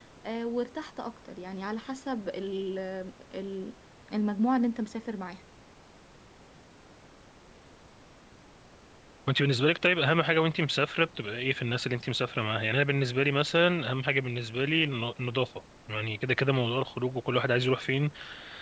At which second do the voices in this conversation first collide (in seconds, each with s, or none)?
none